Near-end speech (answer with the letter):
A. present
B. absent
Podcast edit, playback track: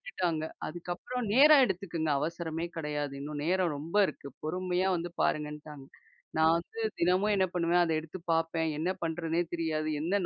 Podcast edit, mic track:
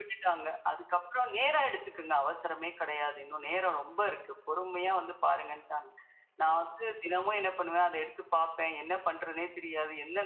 B